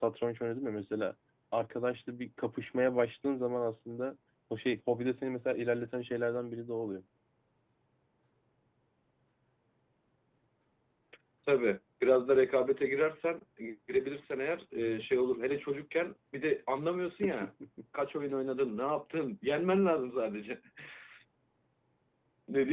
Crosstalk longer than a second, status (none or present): none